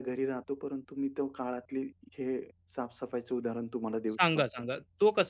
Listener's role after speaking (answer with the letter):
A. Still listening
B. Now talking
B